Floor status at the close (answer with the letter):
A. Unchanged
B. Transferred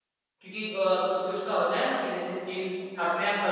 A